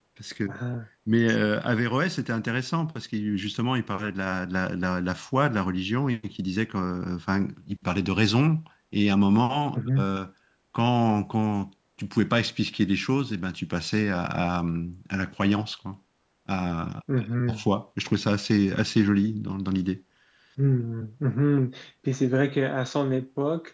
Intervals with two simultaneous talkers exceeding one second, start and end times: none

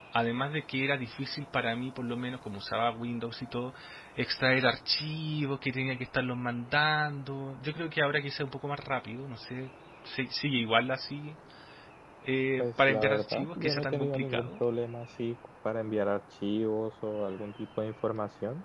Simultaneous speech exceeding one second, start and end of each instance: 12.6-14.6

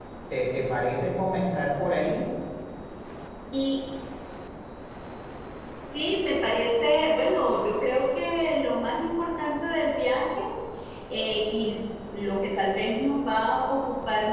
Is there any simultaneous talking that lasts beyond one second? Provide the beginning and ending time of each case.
none

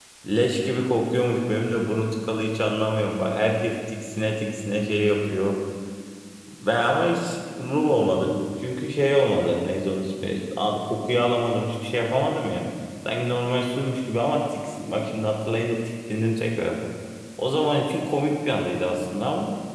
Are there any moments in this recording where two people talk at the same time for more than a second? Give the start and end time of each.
none

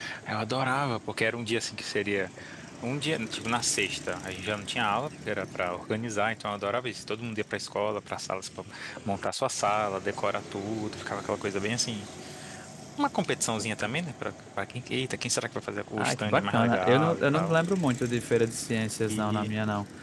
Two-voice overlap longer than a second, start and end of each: 16.0-17.6

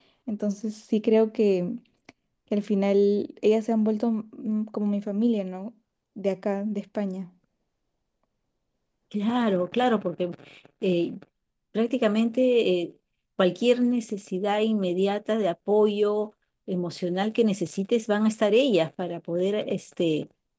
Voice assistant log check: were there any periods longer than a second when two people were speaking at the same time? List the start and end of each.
none

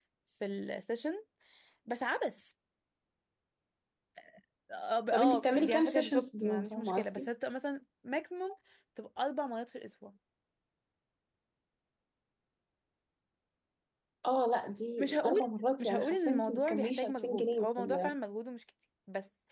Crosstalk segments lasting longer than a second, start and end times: 5.1-7.3, 15.8-18.1

